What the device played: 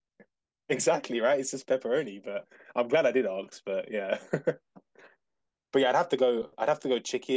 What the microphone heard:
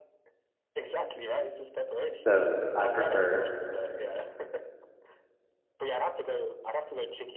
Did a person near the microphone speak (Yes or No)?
Yes